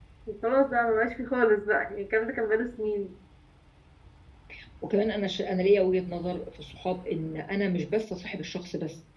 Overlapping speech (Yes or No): No